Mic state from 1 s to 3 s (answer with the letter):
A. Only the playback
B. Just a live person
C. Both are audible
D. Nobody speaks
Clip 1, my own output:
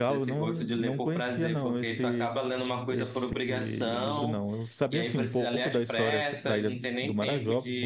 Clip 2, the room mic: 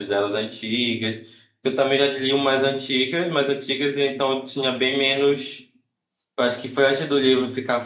B